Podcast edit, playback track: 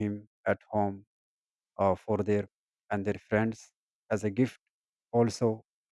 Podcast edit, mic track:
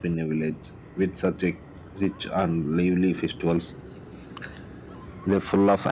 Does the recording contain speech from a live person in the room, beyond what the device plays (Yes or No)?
Yes